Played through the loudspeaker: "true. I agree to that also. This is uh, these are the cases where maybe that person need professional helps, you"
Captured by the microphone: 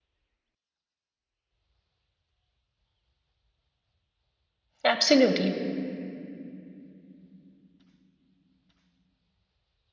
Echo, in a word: none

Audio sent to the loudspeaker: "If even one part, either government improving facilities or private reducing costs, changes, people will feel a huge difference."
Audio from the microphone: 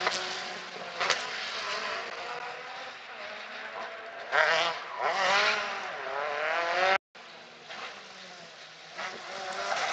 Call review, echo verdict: none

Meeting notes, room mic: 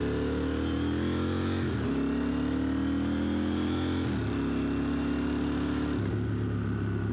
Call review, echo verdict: none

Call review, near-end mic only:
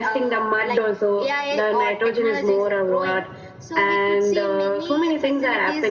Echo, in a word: present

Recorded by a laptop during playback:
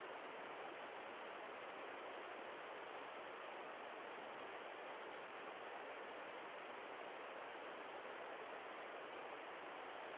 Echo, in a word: none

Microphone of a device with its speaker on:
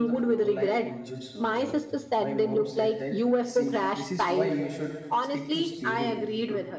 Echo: present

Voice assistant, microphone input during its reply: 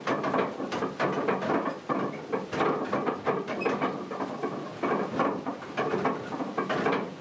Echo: none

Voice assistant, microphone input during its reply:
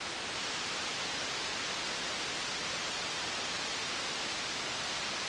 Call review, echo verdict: none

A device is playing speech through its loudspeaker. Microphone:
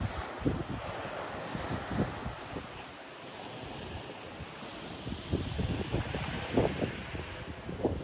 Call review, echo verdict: none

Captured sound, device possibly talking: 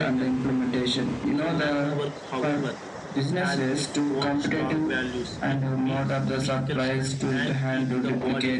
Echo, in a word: present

